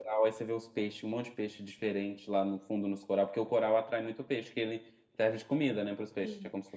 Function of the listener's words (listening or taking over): taking over